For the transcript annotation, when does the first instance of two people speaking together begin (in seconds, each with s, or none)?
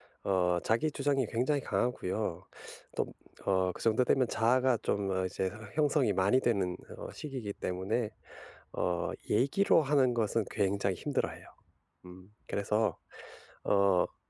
none